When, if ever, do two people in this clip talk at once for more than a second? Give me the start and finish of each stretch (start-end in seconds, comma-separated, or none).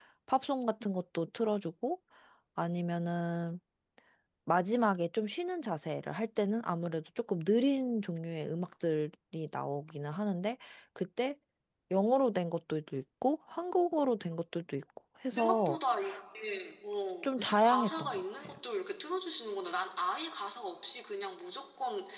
17.2-18.6